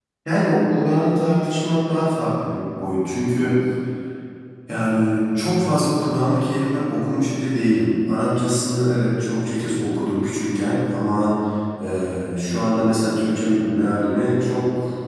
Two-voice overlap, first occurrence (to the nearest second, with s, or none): none